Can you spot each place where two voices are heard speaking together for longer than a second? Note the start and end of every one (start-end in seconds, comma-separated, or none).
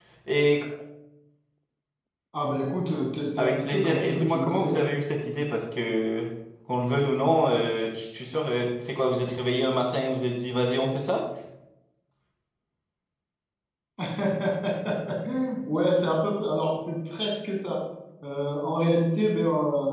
3.4-4.9